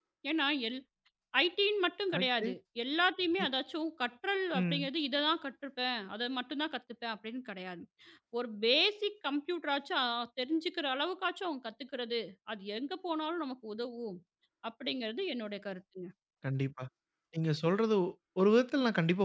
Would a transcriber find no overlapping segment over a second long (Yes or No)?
Yes